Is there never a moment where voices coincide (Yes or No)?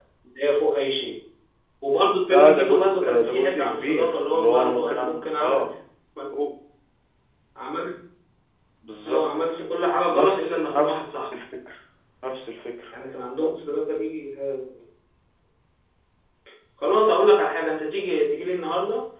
No